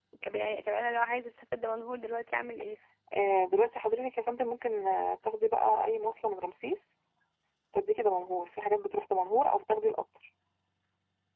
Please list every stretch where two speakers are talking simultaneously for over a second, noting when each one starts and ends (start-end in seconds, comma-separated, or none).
none